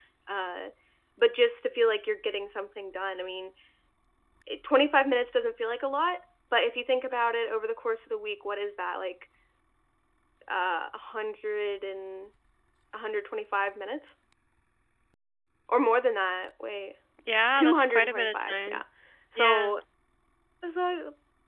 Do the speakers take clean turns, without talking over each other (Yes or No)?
No